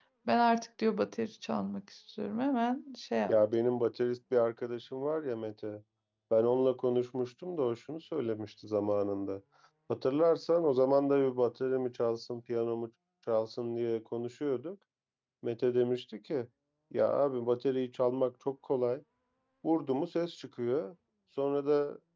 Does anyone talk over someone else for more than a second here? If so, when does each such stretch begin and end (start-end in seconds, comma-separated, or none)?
none